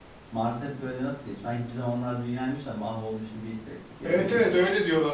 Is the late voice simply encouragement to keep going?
No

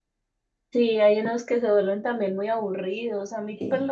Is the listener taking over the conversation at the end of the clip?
No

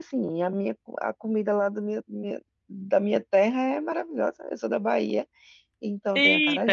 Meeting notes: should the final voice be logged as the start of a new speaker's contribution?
Yes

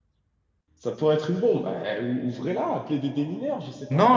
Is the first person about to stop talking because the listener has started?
Yes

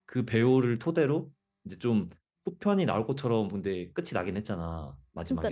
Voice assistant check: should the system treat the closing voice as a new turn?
Yes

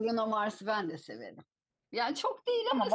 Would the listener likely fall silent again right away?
No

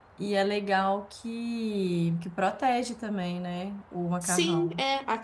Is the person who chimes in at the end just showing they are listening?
No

